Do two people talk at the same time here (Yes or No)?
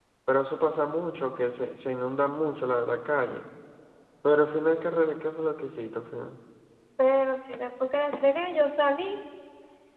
No